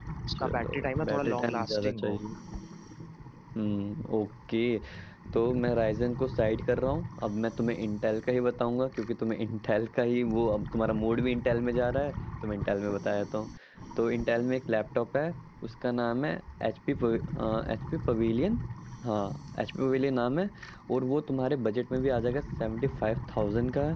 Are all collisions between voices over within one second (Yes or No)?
No